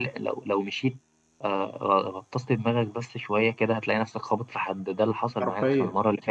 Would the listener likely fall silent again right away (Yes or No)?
No